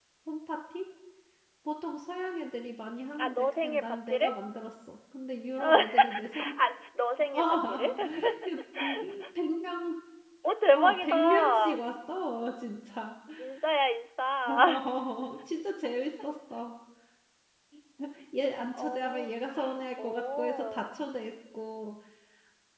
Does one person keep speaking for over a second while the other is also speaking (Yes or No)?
Yes